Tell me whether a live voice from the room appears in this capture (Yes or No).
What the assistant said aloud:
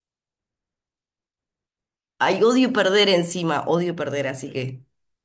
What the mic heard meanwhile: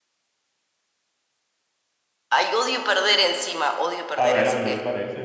Yes